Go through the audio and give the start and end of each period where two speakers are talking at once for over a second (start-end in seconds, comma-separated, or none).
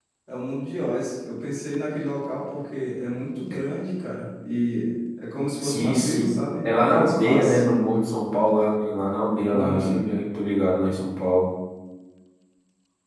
5.6-7.6